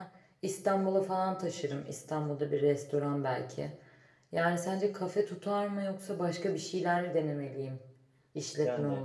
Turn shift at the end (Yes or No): Yes